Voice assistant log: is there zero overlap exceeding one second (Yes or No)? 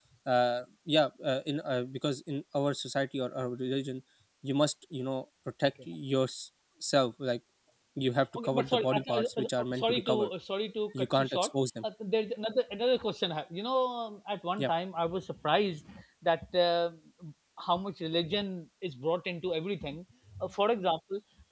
No